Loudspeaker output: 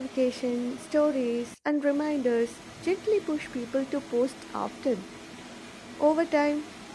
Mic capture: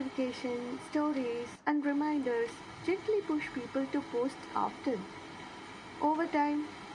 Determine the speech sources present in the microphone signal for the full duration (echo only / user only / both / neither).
echo only